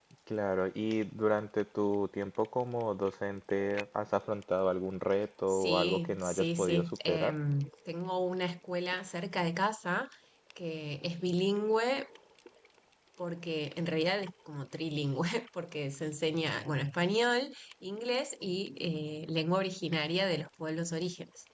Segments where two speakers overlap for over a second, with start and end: 5.5-7.3

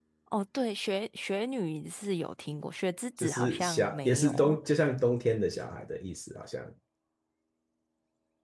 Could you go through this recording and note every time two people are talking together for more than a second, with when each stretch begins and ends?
3.2-4.6

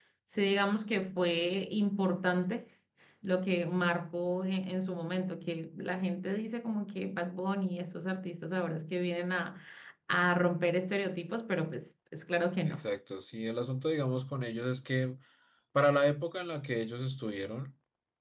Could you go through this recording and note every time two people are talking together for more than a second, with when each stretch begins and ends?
none

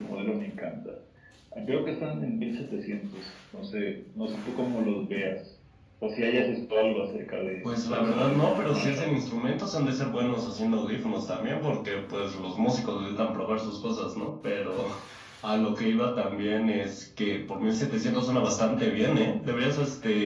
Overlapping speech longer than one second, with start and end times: 7.6-9.1

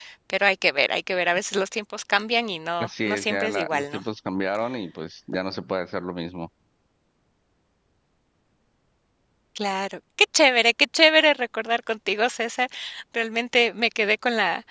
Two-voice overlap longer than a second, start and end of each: 2.8-4.0

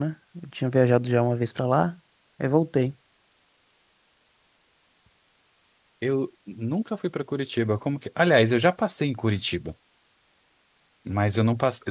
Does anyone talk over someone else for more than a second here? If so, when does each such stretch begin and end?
none

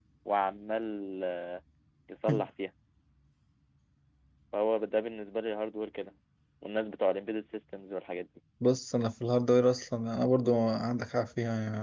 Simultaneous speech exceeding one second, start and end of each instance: none

